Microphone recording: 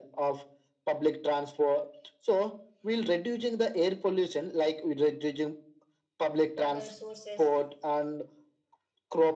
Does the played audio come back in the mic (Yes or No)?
Yes